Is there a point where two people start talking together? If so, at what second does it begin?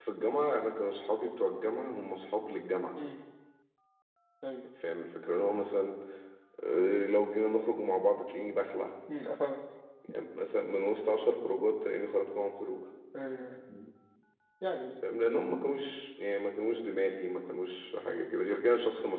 none

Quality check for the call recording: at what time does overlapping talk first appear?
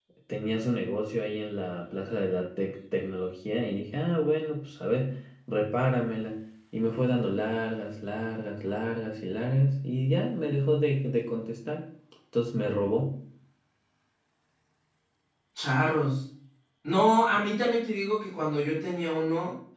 none

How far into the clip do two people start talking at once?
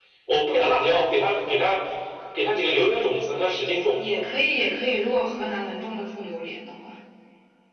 none

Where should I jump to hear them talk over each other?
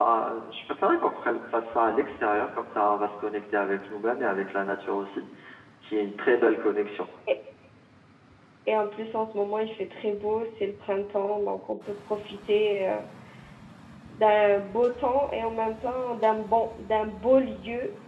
none

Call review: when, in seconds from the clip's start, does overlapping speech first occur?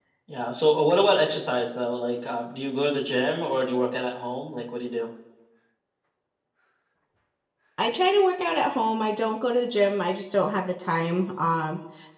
none

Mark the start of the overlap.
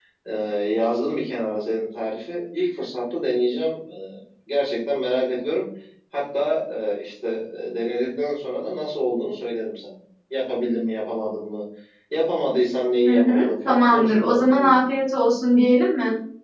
13.1 s

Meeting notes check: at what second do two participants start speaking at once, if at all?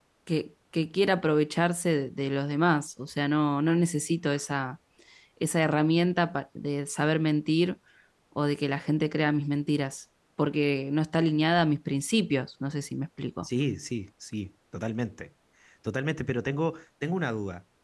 none

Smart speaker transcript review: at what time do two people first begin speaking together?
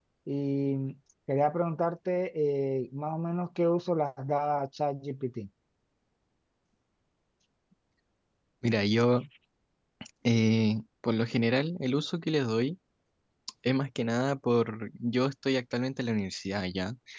none

